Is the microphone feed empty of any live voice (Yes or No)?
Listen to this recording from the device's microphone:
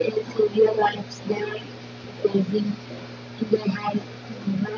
Yes